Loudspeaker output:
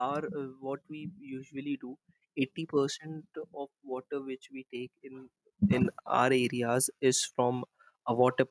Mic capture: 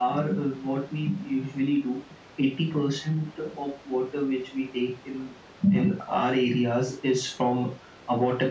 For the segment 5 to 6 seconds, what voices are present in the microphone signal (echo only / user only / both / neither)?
echo only